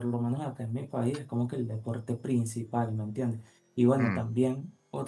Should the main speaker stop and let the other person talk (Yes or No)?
No